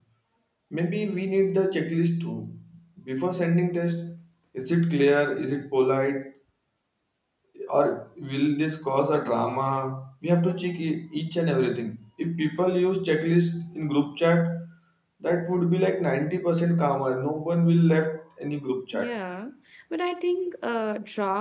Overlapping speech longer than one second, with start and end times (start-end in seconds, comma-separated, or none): none